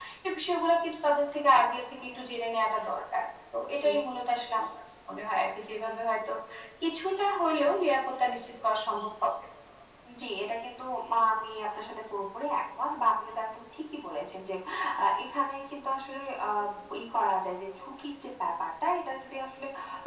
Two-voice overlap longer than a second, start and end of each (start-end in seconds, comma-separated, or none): none